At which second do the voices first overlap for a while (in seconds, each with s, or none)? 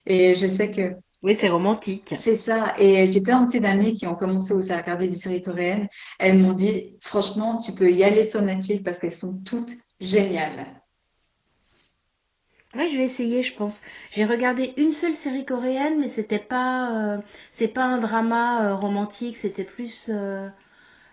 none